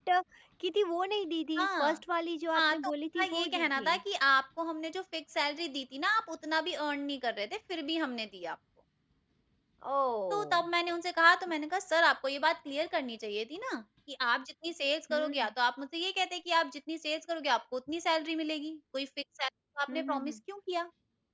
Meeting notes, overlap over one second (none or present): present